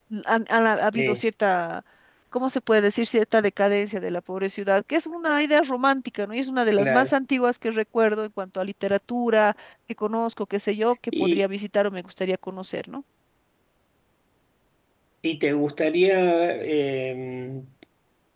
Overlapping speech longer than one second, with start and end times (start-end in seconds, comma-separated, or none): none